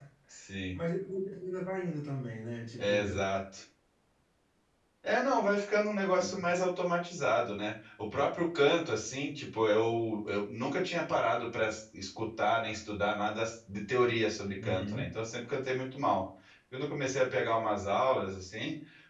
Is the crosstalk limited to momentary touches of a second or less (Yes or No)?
Yes